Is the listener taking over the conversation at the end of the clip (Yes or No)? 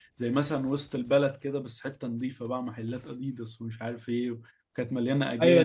Yes